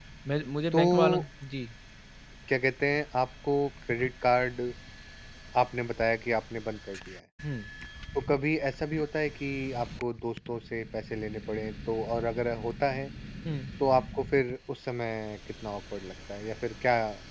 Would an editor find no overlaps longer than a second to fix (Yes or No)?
Yes